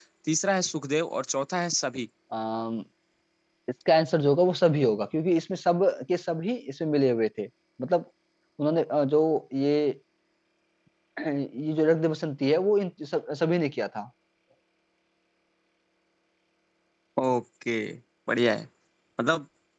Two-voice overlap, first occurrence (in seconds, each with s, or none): none